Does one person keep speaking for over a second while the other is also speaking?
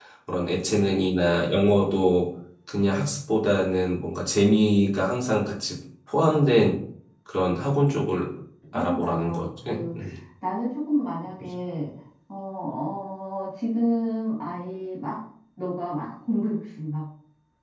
Yes, from 8.7 s

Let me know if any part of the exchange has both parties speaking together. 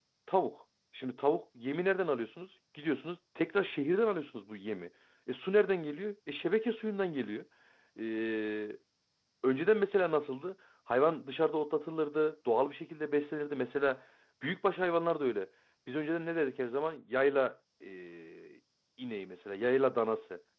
No

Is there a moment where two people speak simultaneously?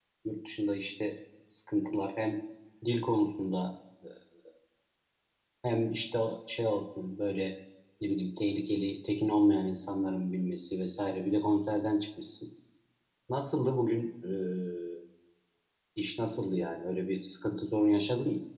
No

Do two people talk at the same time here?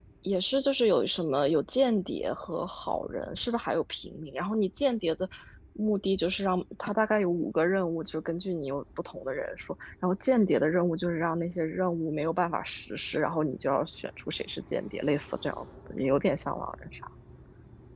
No

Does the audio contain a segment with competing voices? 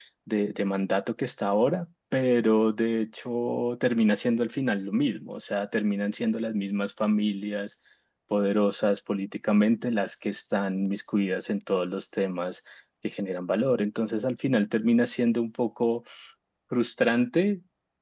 No

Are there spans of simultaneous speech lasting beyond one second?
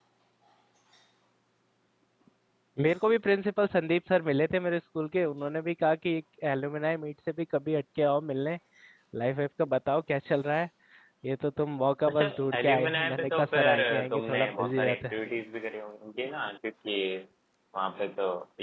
Yes, from 12.1 s

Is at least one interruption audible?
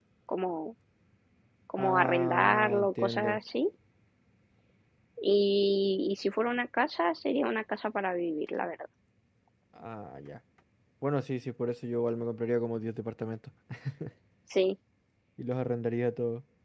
Yes, from 1.8 s

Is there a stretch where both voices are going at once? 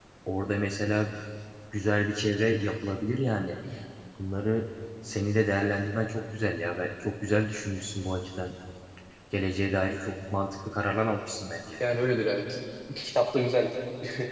No

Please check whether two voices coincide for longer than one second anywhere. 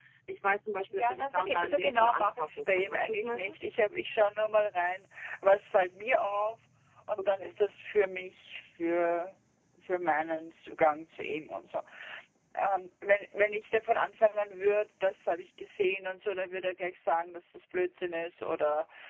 Yes, from 0.9 s

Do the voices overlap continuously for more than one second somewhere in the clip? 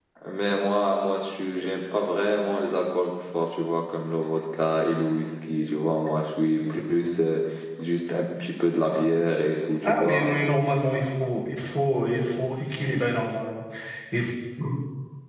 No

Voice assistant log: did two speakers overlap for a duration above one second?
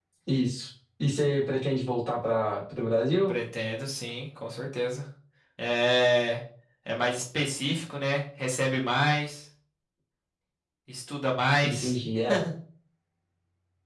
No

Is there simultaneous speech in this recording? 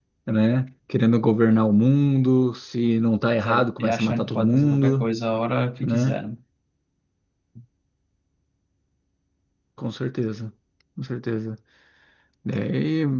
Yes, from 3.4 s

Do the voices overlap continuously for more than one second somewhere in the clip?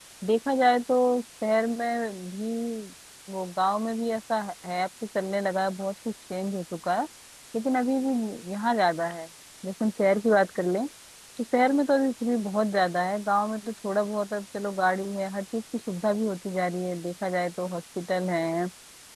No

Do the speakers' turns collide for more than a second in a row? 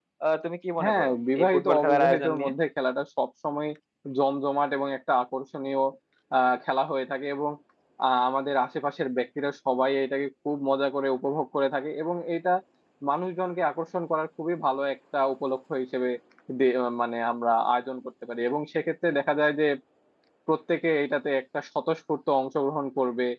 Yes, from 0.8 s

